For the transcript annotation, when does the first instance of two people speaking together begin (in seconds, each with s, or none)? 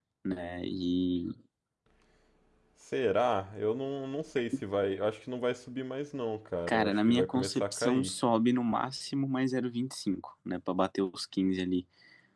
6.7 s